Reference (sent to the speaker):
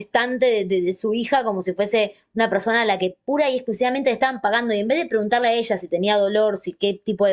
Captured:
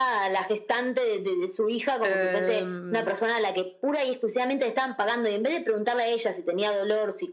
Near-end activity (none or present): present